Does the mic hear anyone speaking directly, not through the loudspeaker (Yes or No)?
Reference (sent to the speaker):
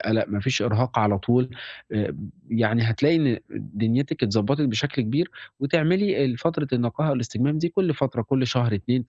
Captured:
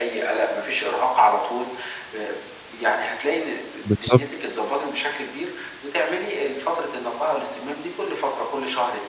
Yes